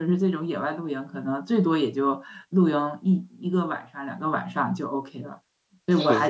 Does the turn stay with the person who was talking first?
Yes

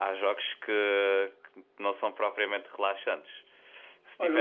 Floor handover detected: Yes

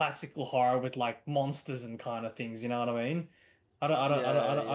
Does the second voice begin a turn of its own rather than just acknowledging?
No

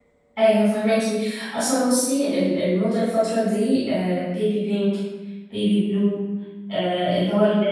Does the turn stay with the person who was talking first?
Yes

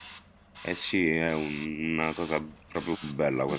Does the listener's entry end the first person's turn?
No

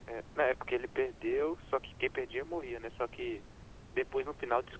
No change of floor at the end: Yes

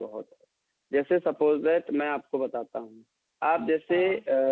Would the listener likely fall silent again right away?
Yes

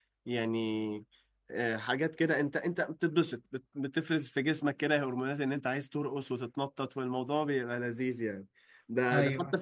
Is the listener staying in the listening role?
Yes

